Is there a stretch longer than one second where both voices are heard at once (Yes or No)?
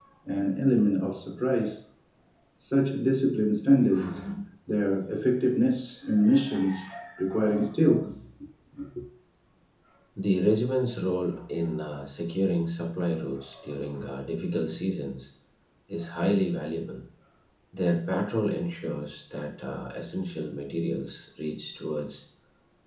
No